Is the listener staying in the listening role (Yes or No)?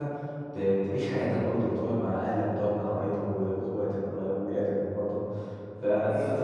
No